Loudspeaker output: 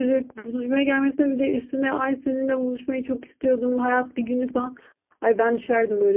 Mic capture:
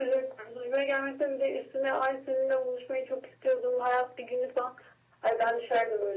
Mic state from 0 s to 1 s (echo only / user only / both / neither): echo only